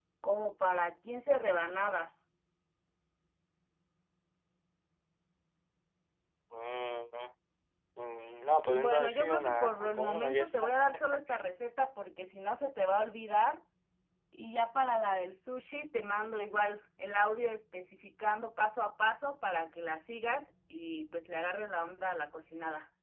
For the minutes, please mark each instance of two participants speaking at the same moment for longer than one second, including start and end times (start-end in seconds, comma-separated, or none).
8.7-10.7